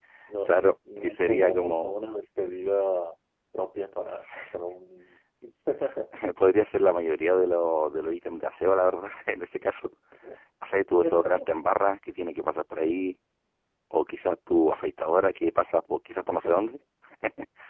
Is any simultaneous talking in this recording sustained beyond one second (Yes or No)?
Yes